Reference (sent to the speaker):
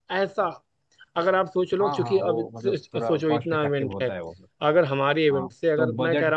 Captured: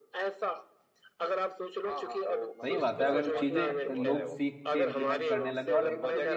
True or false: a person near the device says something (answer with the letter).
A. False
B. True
B